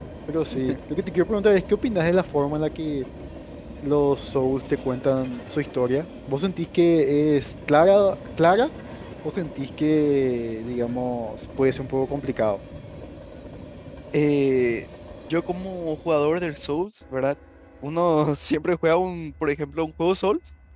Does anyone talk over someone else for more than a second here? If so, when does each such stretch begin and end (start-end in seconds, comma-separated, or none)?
none